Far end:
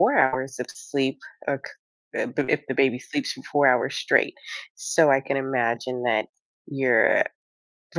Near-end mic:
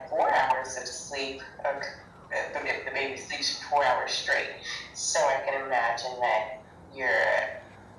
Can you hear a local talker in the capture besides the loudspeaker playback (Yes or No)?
No